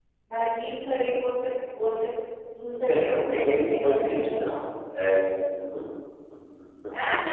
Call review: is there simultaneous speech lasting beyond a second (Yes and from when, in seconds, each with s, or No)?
Yes, from 2.9 s